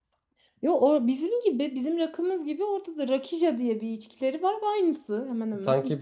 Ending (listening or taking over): taking over